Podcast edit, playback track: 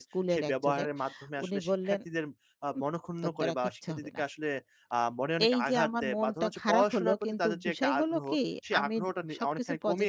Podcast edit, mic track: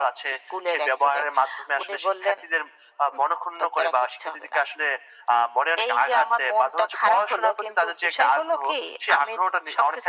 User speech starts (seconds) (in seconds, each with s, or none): none